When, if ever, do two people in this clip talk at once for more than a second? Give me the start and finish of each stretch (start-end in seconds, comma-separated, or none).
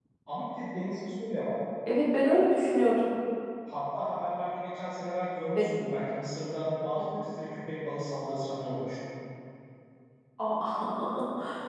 none